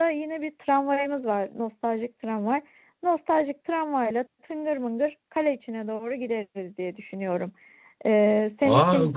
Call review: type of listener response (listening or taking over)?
taking over